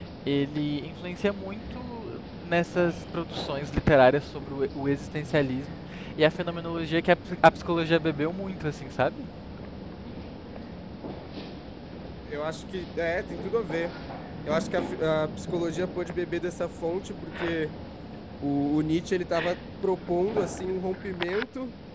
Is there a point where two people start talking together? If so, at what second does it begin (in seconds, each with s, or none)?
none